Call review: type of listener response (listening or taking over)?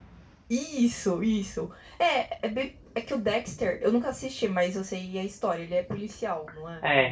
taking over